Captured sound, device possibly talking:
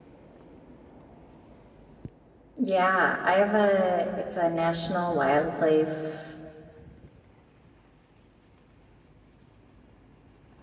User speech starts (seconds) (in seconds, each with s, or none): 2.6 s